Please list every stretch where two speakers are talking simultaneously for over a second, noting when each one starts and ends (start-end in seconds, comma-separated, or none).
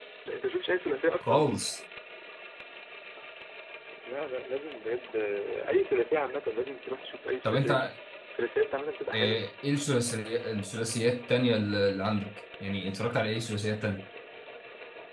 none